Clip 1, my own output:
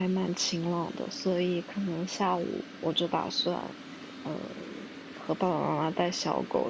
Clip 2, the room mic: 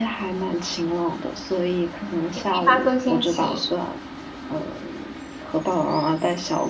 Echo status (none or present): present